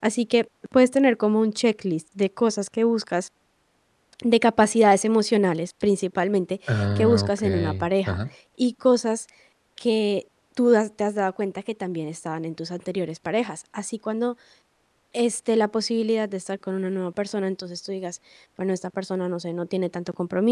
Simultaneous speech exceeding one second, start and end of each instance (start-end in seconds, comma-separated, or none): 7.0-8.2